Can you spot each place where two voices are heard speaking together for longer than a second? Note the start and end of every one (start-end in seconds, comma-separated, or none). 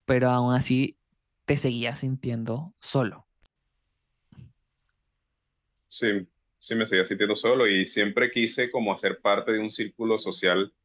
none